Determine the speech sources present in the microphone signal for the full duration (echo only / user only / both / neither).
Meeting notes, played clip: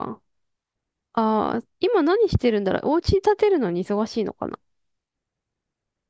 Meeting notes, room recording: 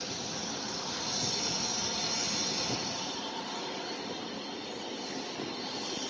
neither